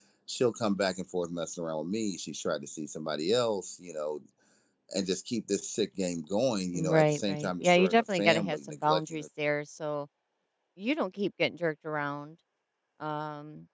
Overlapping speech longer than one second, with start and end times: 6.7-9.2

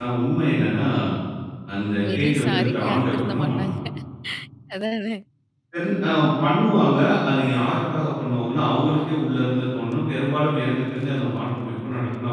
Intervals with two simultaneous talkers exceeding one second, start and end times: 2.1-3.7

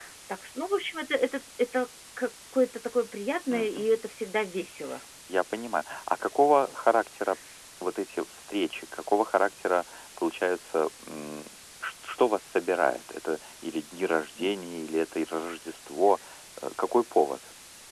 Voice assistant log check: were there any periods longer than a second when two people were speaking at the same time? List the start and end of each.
none

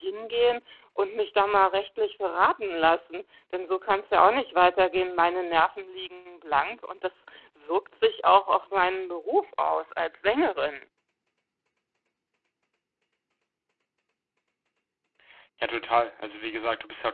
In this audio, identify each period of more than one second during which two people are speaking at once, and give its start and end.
none

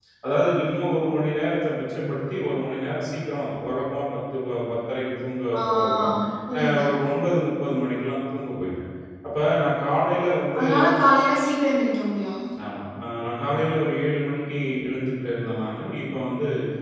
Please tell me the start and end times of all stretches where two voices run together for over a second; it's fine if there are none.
none

